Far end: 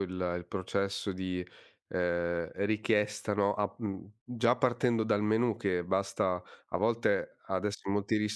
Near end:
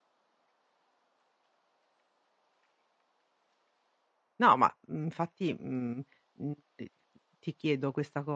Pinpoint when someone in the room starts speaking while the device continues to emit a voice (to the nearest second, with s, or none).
4 s